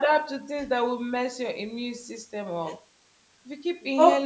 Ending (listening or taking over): listening